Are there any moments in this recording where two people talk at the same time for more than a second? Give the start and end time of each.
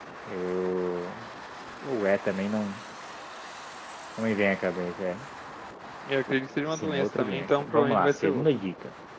6.7-8.4

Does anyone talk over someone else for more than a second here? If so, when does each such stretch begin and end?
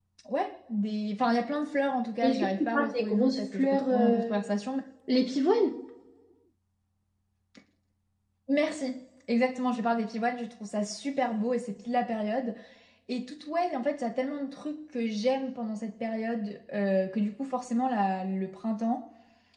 2.2-4.4

